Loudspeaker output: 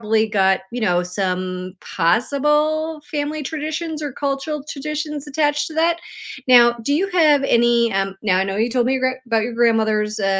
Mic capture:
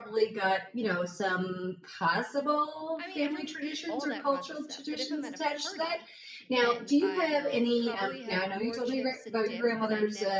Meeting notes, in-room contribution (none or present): present